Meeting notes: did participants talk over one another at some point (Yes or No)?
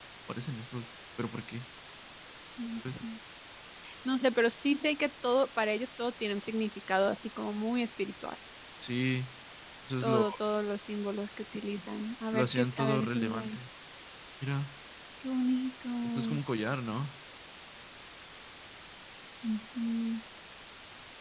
Yes